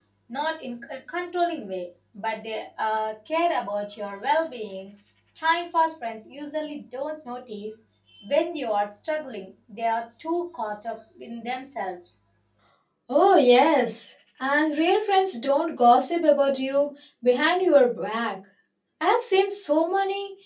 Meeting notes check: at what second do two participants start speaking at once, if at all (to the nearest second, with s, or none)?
none